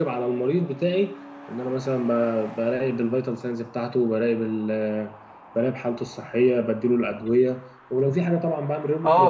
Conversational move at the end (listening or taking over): taking over